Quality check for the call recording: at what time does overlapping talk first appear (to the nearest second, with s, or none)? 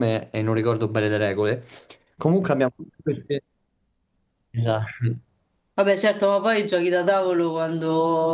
none